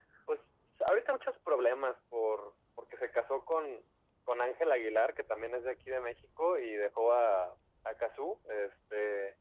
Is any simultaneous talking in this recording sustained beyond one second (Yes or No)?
No